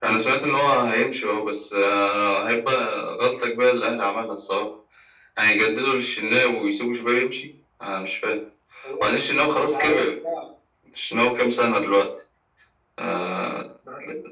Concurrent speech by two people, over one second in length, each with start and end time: none

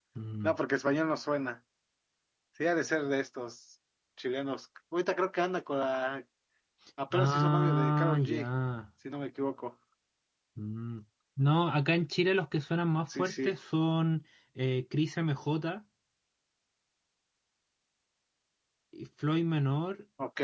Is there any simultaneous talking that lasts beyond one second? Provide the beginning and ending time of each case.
7.1-8.4

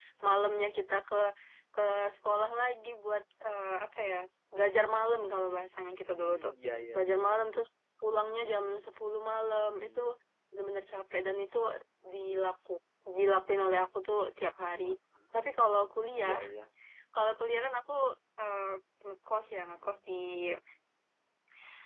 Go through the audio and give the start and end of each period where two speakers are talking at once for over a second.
none

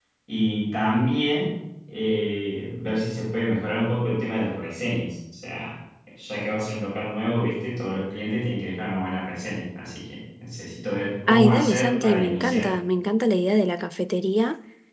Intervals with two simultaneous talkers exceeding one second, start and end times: 11.3-12.7

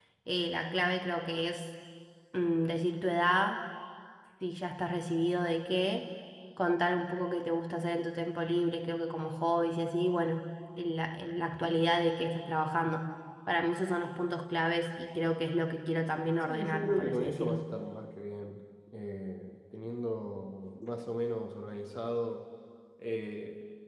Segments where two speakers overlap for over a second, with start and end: 16.4-17.6

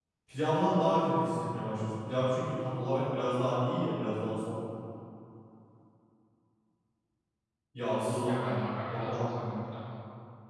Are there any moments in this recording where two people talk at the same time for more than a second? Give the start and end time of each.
8.2-9.6

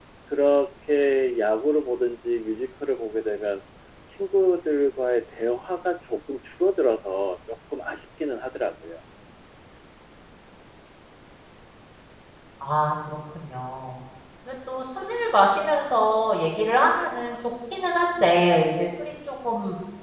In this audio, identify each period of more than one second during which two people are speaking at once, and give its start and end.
none

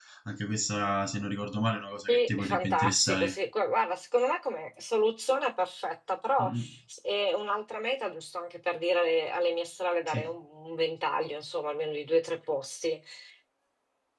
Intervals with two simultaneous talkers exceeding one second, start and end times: 2.1-3.3

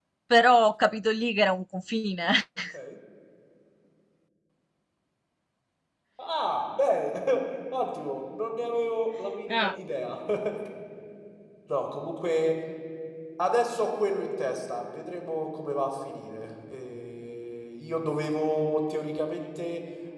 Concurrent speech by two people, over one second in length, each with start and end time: none

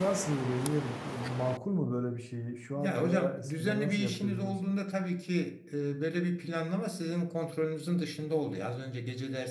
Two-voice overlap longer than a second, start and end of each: 2.7-4.6

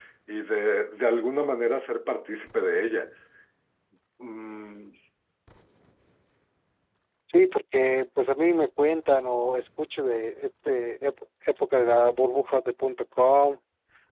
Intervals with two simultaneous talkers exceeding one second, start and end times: none

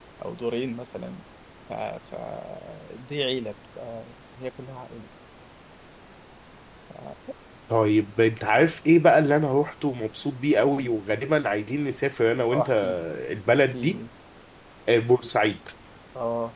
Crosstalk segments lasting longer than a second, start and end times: none

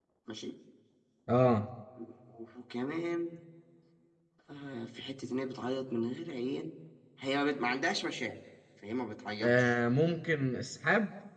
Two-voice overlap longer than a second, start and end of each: none

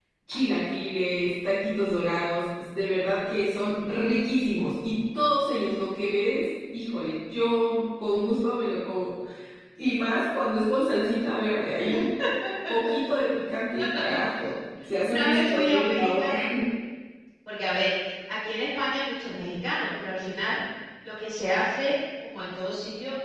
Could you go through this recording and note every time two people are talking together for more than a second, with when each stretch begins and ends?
15.1-16.3

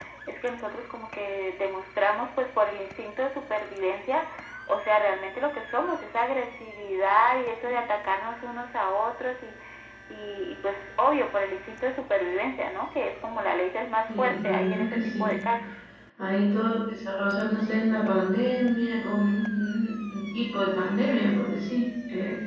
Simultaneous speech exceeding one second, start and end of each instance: 14.1-15.3

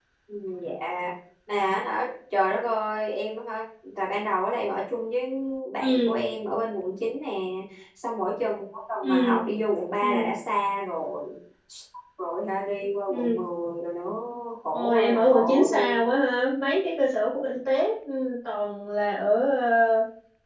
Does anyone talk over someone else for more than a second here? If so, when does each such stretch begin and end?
14.7-16.0

